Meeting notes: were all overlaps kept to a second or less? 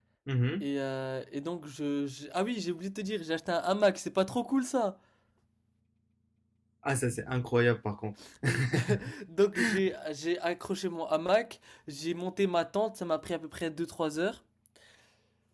Yes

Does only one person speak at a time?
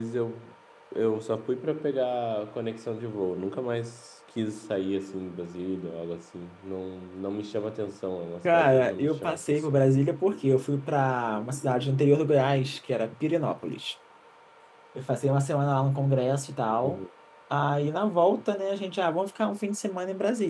No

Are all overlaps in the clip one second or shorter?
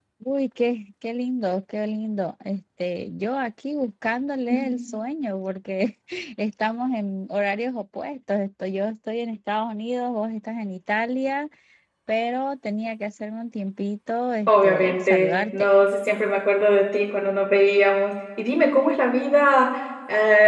No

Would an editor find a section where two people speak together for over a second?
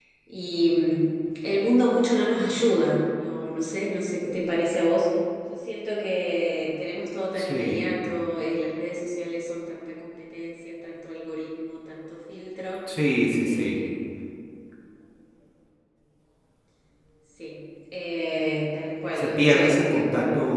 Yes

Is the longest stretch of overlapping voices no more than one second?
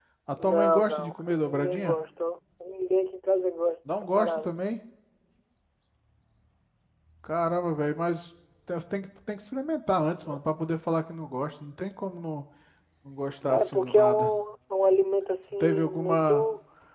No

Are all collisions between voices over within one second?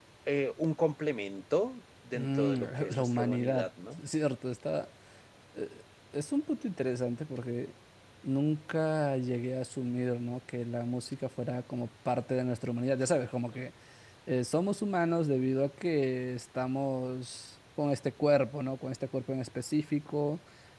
No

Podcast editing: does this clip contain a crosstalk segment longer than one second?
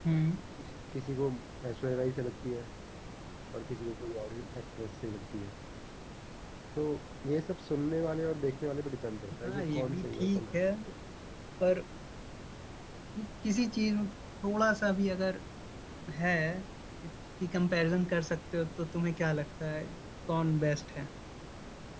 Yes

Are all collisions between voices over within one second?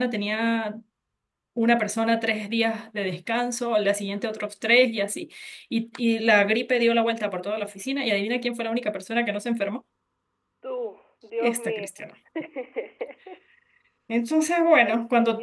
Yes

